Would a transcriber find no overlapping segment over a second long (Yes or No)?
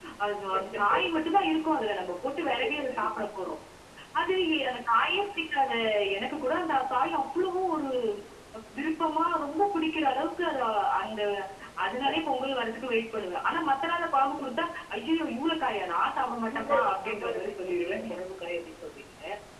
No